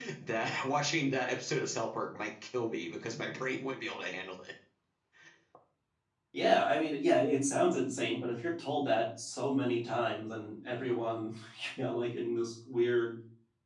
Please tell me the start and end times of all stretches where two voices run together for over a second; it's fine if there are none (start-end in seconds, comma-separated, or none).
none